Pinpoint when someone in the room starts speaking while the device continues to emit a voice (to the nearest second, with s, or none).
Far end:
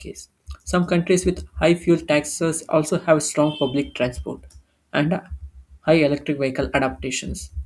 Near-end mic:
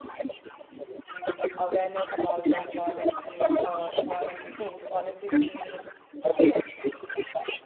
2 s